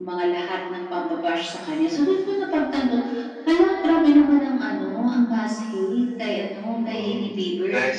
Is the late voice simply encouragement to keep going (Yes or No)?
No